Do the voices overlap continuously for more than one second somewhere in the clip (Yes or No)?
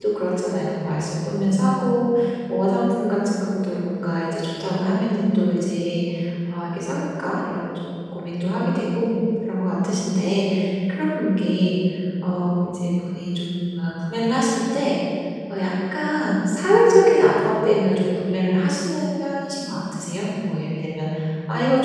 No